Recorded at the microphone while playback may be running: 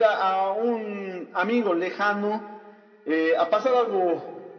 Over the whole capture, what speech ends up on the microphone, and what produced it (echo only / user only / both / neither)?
echo only